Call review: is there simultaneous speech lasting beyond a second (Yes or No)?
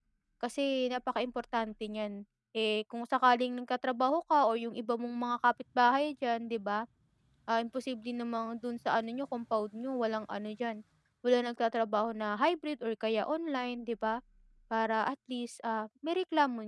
No